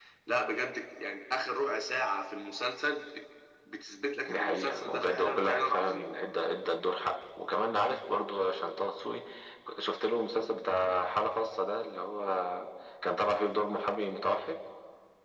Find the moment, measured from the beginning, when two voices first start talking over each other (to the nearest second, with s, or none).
4 s